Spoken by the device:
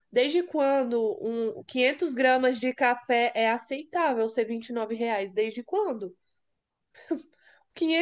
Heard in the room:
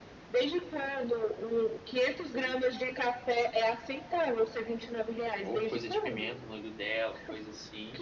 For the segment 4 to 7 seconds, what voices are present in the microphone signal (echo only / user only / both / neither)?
both